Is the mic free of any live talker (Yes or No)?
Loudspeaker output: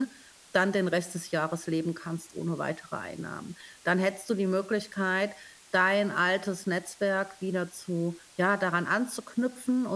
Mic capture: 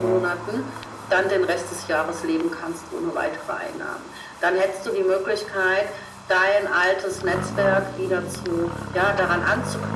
Yes